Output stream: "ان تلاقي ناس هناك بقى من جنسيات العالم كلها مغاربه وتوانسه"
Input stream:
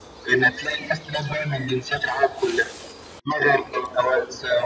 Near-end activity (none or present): none